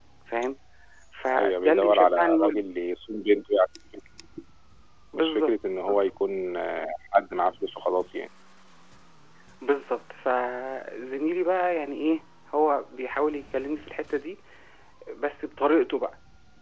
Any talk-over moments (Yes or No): Yes